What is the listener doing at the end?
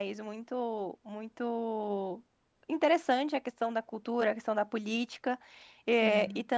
listening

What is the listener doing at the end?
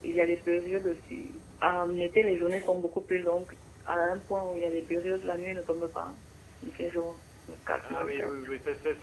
taking over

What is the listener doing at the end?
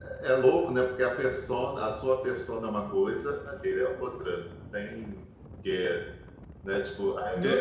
taking over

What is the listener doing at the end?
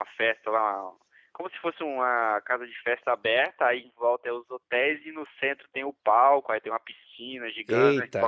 listening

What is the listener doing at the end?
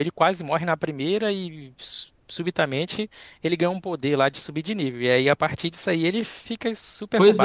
taking over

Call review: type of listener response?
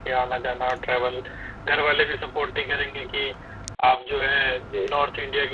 listening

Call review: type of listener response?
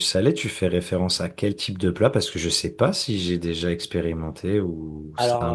taking over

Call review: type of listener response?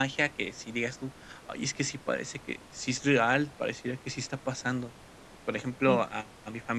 listening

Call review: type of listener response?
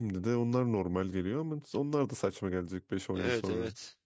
taking over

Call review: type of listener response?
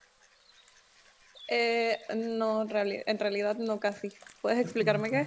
taking over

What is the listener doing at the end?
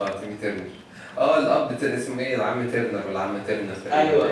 taking over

